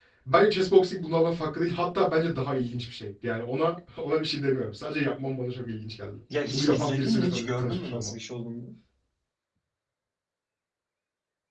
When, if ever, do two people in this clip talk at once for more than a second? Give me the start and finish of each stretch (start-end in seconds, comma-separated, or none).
6.5-8.1